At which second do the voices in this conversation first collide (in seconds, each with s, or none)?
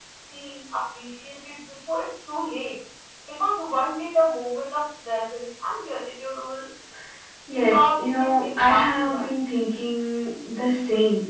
7.5 s